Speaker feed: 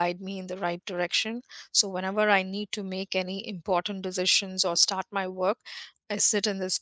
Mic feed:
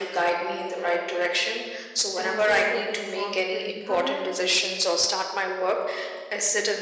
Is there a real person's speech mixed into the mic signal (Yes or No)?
Yes